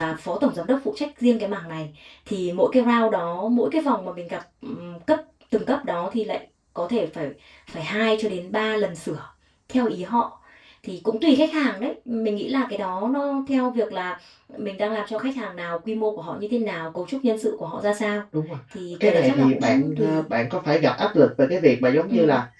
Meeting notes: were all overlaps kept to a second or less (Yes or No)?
No